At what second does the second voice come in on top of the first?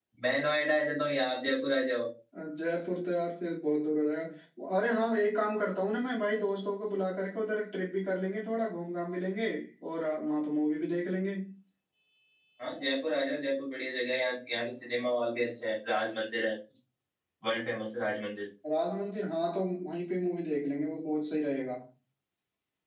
none

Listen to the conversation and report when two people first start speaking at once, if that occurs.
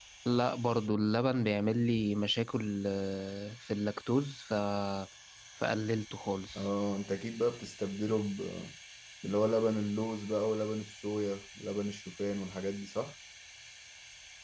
none

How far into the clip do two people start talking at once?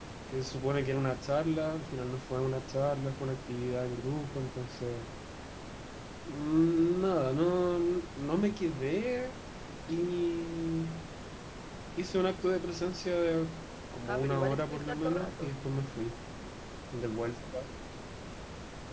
14.1 s

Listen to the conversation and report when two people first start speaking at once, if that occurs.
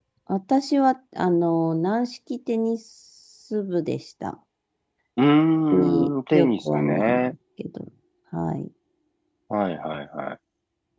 5.7 s

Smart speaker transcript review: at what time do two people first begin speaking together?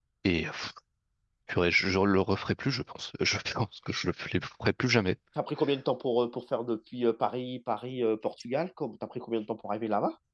none

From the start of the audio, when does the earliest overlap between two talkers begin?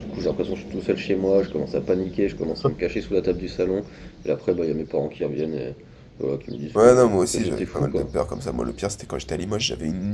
6.8 s

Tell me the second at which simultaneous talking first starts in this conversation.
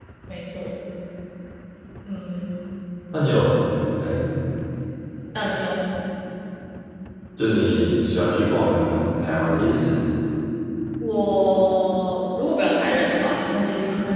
none

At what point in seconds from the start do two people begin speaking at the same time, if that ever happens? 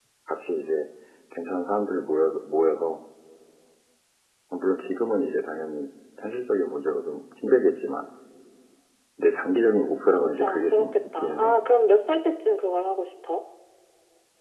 10.2 s

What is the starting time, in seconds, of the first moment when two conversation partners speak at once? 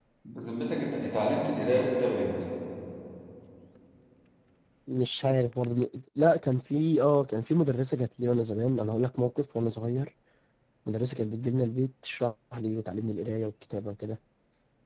none

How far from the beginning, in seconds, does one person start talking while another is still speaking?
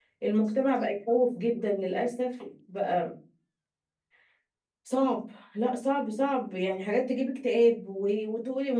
none

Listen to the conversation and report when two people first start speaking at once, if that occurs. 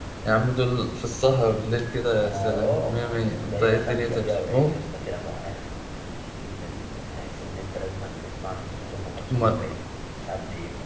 2.2 s

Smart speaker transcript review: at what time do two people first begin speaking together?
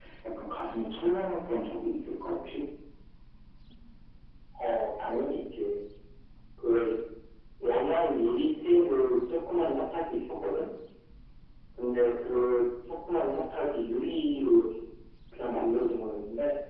none

